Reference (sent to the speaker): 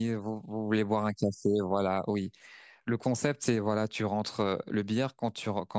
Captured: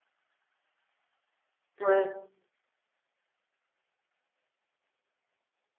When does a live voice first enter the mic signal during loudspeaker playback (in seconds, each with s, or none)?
1.8 s